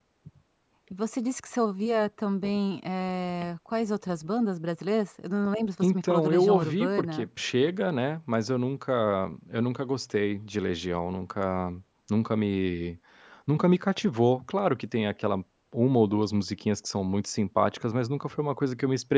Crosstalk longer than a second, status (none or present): present